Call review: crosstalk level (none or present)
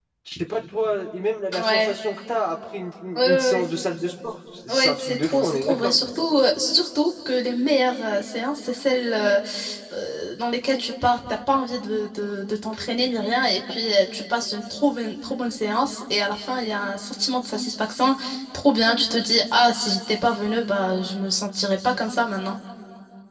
present